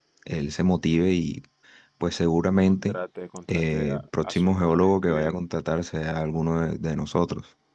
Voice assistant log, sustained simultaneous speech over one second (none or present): present